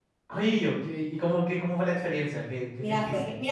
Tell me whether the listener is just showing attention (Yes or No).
No